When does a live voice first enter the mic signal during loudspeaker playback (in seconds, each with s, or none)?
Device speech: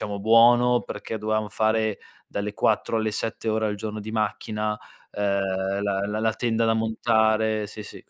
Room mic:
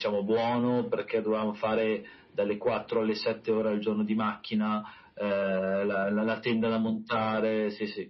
none